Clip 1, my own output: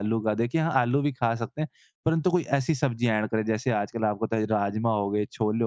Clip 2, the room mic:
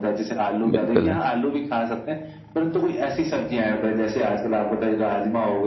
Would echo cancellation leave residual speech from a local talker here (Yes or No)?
Yes